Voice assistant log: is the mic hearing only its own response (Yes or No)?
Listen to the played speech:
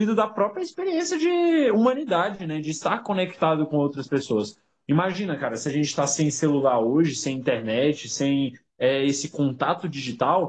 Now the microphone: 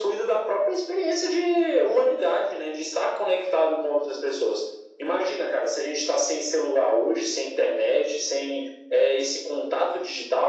Yes